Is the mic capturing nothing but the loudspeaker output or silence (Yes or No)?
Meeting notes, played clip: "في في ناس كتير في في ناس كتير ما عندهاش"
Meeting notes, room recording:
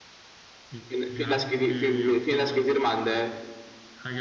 No